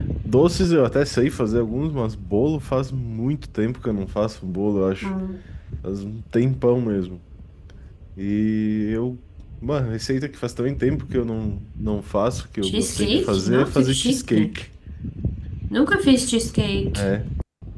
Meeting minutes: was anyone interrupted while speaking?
Yes, from 12.6 s

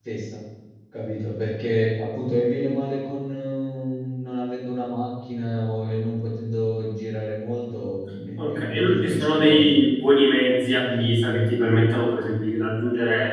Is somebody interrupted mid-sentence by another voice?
Yes, from 8.4 s

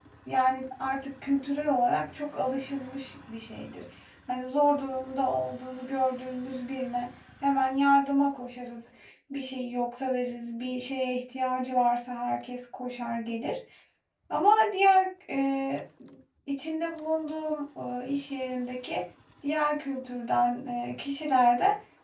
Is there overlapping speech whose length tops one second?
No

